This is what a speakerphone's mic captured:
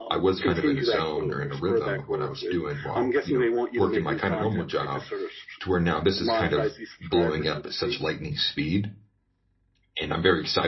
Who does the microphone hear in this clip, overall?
both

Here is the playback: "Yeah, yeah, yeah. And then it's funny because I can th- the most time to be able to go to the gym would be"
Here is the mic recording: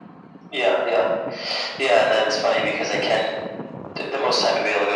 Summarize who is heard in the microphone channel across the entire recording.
echo only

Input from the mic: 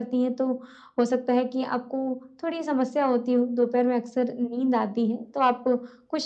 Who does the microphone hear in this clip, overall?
echo only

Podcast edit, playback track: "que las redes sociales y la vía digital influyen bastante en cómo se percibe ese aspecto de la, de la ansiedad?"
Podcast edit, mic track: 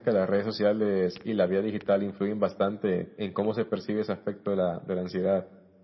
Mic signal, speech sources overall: echo only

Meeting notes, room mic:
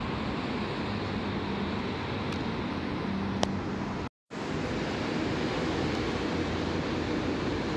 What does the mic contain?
neither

